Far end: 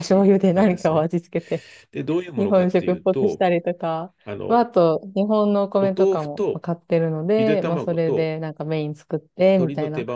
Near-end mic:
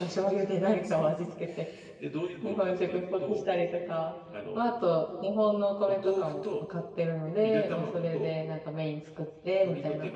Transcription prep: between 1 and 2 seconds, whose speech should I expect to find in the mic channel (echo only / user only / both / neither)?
echo only